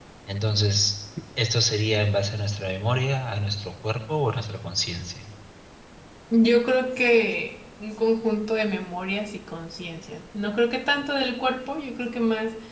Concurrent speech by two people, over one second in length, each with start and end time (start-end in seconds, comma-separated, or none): none